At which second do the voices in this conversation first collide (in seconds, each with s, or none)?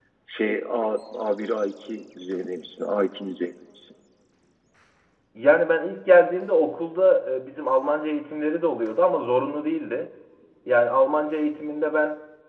none